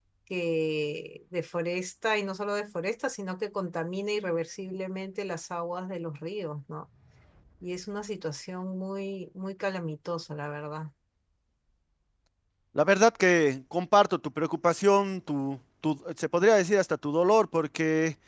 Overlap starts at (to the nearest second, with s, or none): none